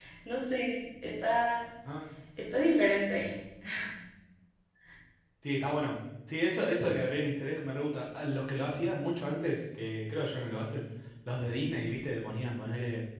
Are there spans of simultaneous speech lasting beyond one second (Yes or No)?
No